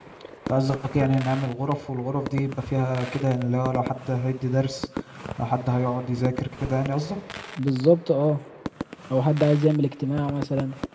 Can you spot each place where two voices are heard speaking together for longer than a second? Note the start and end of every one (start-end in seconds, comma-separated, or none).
none